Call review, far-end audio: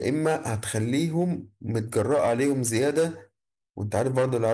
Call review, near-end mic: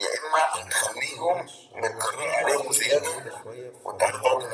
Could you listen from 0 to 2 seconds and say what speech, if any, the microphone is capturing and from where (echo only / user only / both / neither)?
both